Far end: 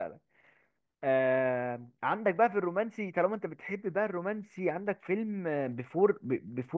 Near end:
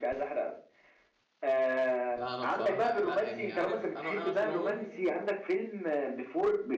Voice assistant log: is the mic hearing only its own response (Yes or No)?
No